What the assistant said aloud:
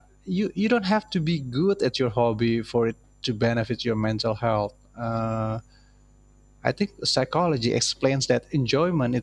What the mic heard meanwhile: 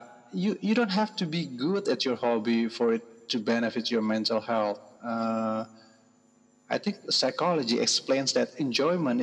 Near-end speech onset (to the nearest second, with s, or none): none